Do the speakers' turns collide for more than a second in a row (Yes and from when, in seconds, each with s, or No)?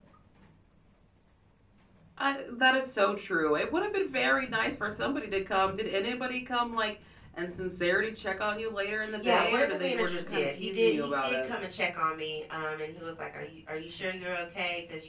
Yes, from 9.0 s